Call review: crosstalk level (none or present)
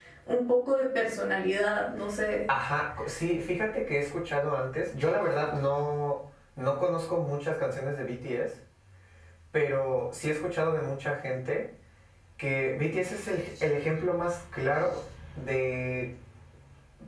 none